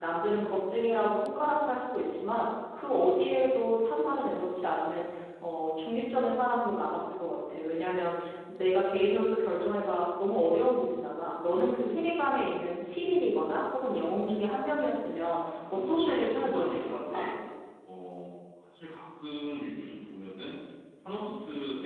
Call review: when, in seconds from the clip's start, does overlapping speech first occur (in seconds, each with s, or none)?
15.6 s